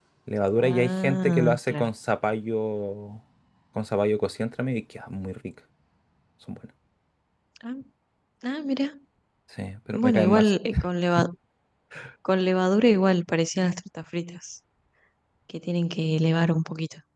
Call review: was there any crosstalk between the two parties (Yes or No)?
Yes